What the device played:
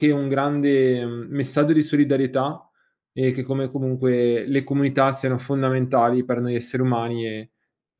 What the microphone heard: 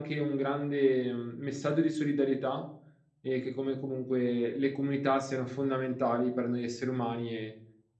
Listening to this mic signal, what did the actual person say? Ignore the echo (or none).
none